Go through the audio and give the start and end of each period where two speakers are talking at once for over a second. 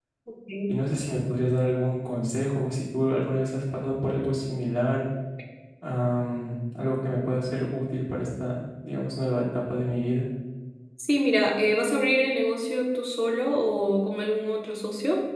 none

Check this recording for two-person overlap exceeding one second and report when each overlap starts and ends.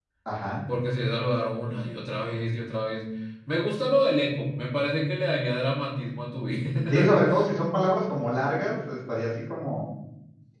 none

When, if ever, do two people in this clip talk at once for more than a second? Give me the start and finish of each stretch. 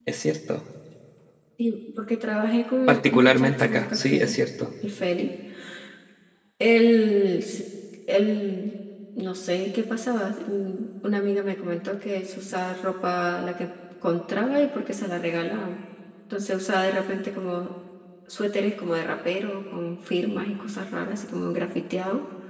2.9-4.3

